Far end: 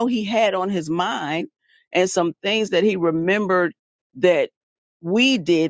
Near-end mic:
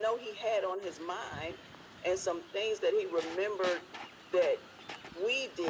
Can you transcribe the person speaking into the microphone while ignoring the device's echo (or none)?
none